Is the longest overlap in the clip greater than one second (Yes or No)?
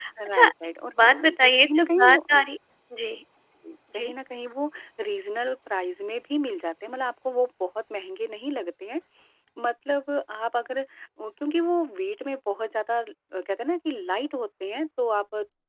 Yes